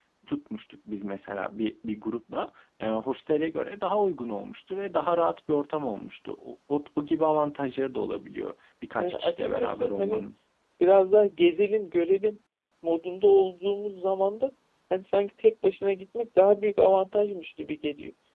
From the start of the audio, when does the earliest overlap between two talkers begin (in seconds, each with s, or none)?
9.0 s